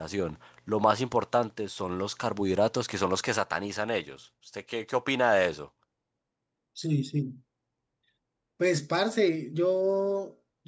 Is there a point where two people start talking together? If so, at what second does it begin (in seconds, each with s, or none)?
none